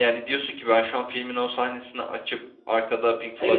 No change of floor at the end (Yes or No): No